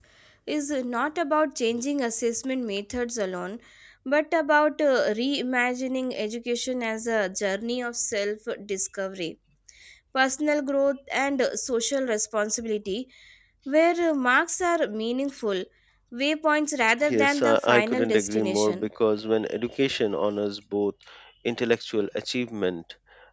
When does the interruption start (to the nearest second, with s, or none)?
17 s